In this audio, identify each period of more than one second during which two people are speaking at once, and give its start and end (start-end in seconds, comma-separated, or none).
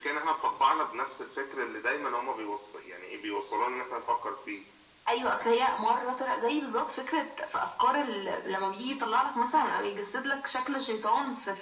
none